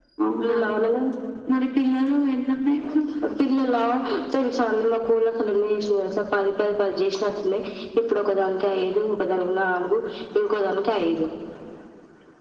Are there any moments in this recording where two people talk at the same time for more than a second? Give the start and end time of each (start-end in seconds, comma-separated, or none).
none